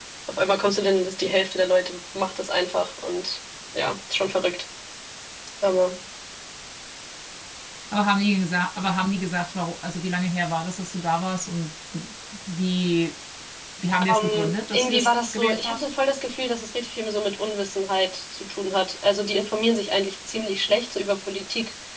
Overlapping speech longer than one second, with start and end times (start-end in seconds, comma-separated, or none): 14.1-15.9